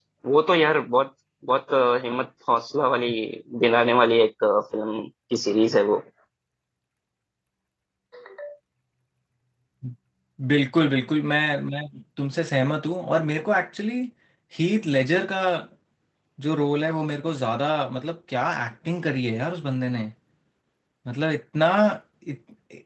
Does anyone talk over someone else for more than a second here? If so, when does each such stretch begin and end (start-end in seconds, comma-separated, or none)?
none